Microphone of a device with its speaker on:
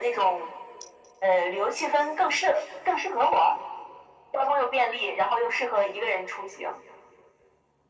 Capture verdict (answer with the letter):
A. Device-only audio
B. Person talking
A